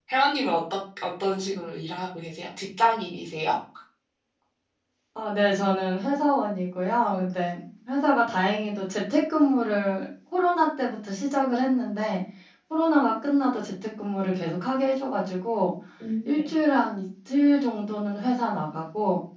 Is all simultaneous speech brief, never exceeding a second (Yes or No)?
Yes